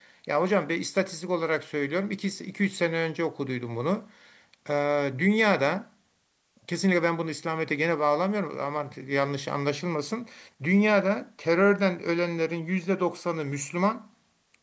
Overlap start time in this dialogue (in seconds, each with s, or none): none